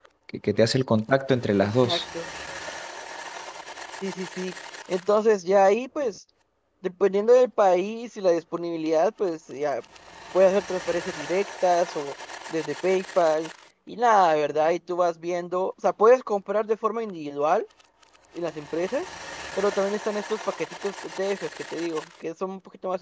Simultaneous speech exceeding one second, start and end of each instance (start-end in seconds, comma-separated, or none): none